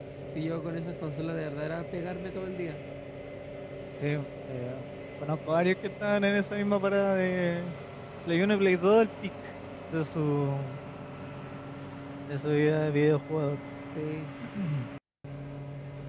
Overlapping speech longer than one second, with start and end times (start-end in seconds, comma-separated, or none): none